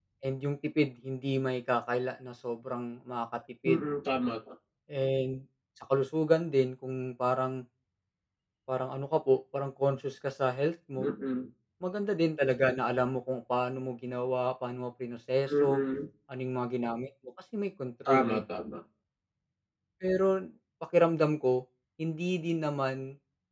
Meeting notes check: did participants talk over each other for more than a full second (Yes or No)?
No